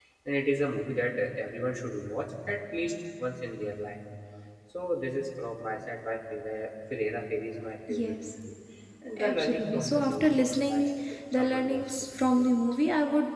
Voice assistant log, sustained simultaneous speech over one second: present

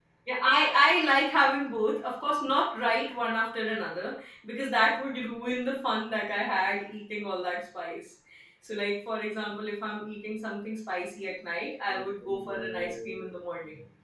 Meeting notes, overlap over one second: present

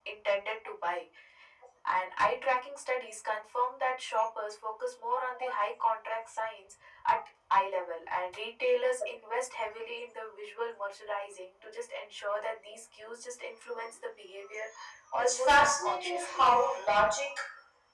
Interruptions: present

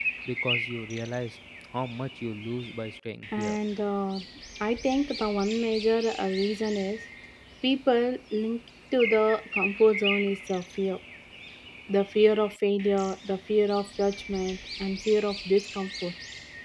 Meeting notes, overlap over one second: none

